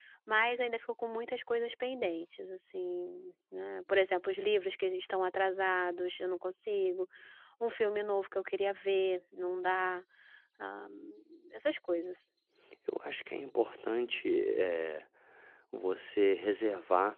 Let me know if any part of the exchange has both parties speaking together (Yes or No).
No